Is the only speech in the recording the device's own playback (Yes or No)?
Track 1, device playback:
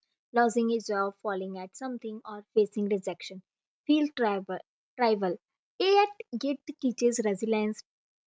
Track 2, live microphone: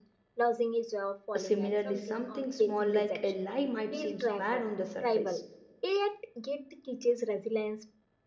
No